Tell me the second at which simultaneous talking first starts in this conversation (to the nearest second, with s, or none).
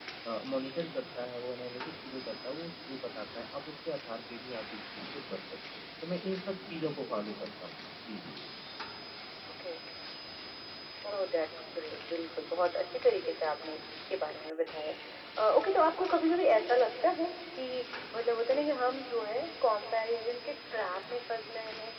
none